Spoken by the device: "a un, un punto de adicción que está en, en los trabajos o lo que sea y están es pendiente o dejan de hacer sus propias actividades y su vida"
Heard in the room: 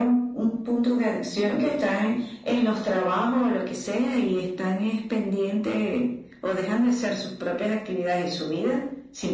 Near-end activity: none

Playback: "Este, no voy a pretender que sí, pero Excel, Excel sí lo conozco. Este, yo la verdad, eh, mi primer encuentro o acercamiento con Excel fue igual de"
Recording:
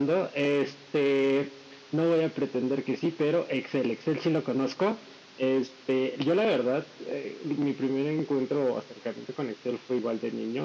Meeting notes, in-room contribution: none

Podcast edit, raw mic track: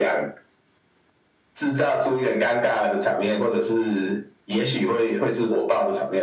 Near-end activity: none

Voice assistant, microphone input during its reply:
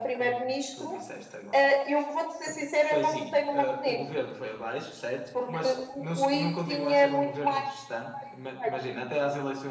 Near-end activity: none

